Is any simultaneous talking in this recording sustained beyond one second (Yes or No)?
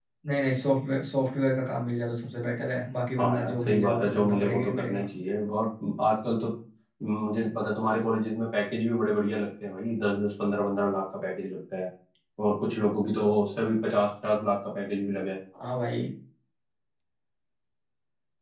Yes